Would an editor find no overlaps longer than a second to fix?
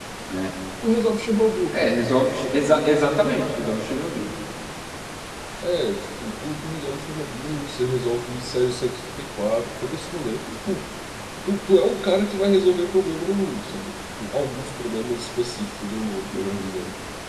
Yes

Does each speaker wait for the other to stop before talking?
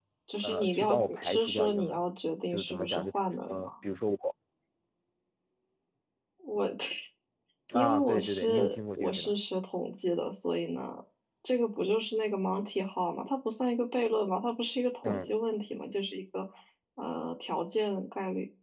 No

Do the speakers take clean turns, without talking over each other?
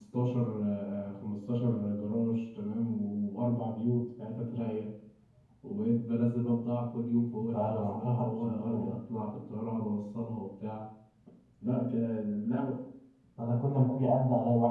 No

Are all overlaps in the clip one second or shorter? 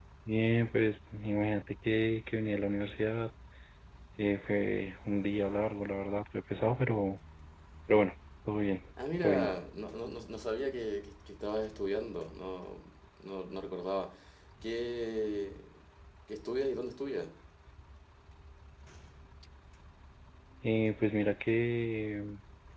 Yes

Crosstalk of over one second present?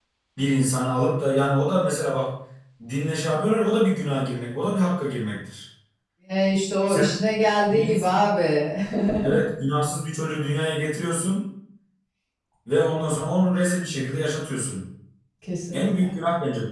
No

